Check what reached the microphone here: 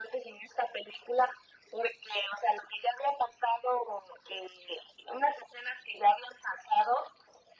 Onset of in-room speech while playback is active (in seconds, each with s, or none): none